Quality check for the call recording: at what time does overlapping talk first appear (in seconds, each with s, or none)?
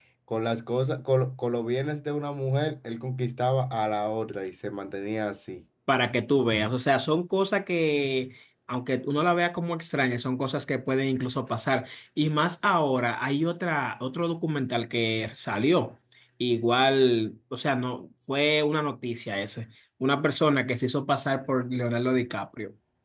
none